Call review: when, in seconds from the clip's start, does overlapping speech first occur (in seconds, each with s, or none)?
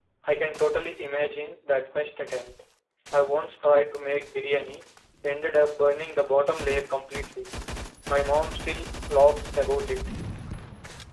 none